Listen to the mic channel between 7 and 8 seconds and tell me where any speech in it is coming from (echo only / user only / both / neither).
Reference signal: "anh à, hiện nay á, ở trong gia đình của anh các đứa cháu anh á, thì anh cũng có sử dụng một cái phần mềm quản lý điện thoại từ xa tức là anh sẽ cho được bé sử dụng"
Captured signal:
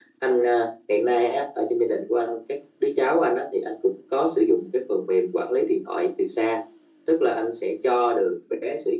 echo only